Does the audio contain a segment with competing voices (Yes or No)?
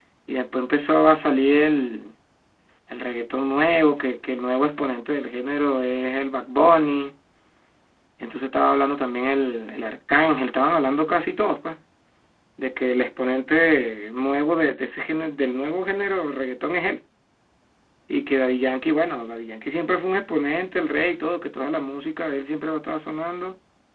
No